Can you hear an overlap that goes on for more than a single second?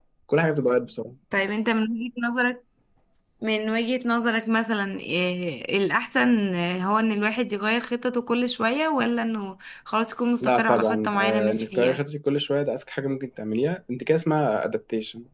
Yes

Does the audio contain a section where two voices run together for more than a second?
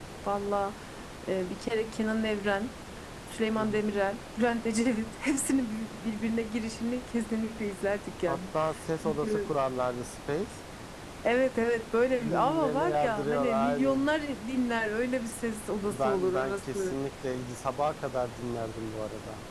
Yes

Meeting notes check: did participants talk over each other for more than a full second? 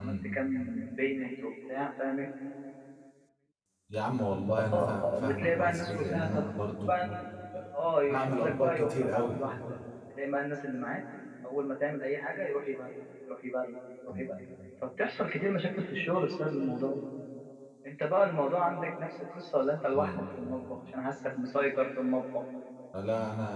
Yes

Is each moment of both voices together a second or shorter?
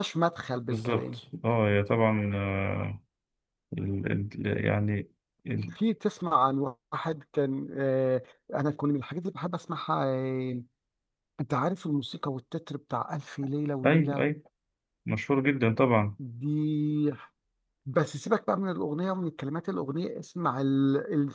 Yes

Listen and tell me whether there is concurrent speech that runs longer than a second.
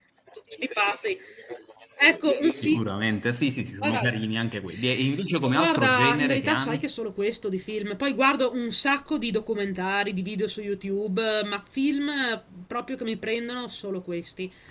Yes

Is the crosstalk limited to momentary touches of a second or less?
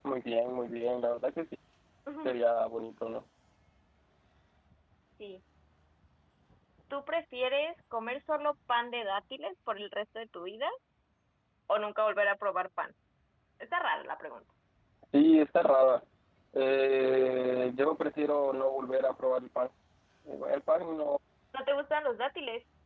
Yes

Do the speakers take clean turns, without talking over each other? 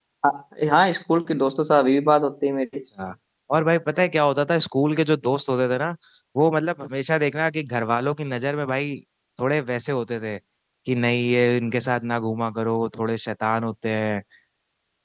Yes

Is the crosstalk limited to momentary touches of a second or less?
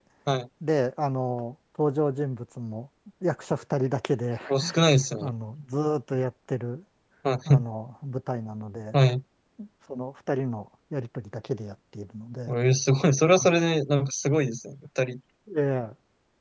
Yes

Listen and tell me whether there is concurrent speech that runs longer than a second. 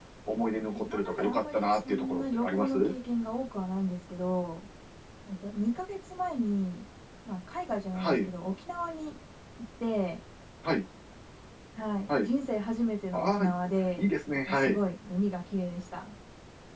Yes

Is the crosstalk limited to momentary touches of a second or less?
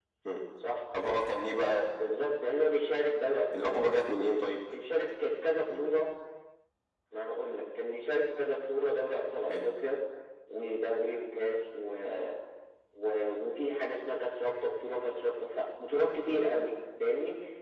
Yes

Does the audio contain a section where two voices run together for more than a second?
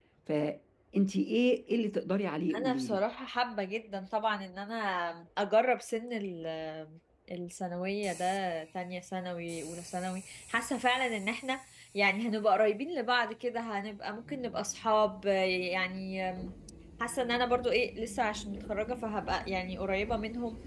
No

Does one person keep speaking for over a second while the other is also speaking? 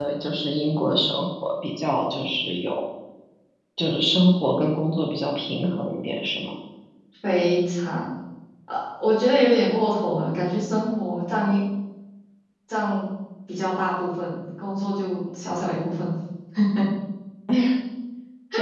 No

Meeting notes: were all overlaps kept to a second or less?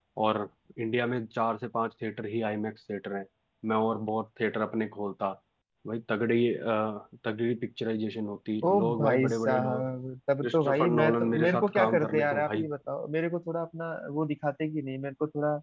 No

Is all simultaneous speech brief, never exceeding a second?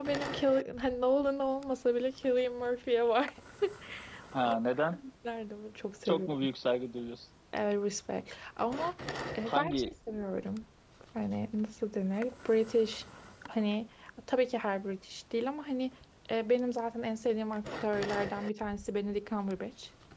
Yes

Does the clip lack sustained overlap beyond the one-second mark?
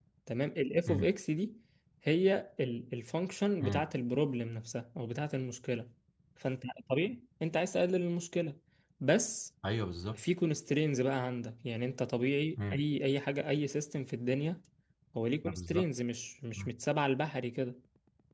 Yes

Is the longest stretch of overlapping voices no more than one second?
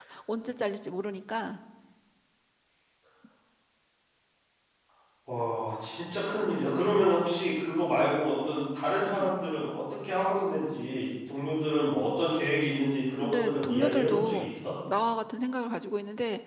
No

